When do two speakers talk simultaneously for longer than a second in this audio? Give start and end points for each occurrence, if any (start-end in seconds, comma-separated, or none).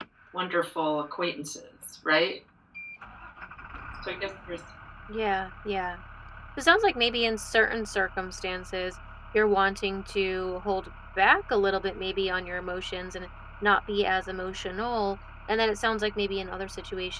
none